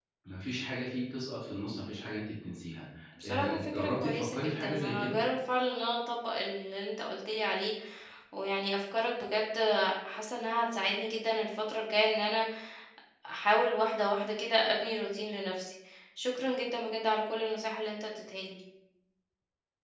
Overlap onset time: 3.2 s

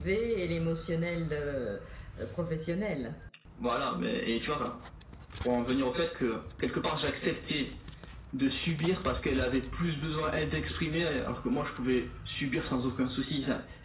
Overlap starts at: none

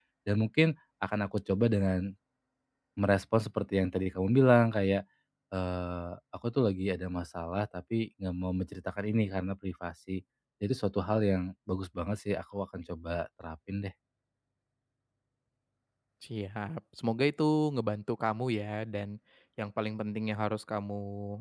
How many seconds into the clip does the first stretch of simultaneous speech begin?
none

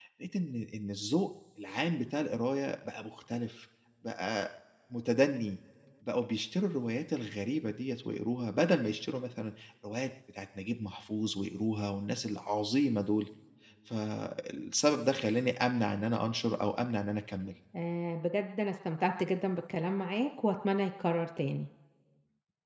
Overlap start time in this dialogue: none

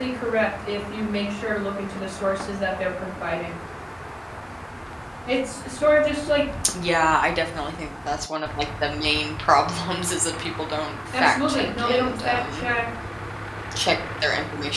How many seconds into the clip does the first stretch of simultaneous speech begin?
11.1 s

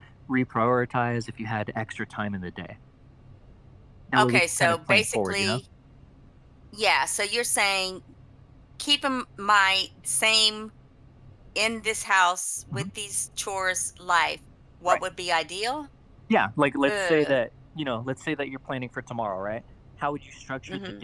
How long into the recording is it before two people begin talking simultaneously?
4.2 s

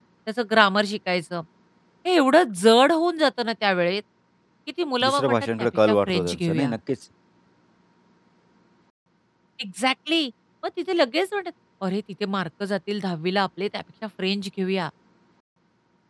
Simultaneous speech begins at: 5.0 s

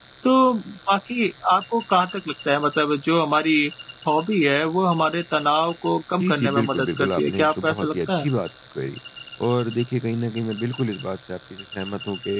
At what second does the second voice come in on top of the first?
6.2 s

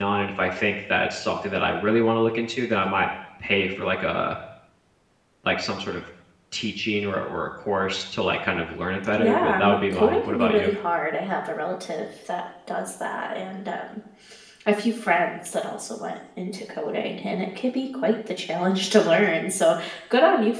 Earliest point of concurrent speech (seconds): 9.1 s

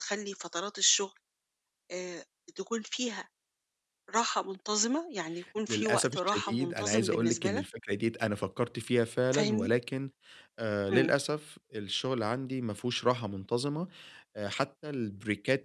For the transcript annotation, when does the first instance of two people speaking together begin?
5.7 s

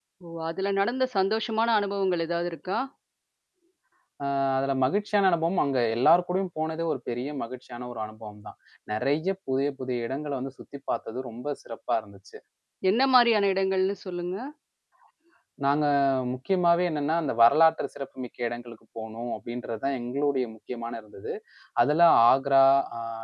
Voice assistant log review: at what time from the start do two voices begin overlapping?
none

